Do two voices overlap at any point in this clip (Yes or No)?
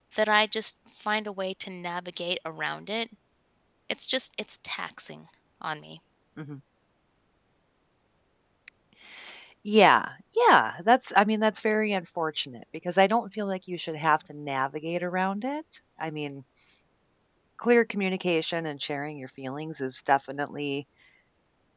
No